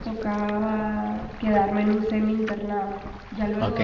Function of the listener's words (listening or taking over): listening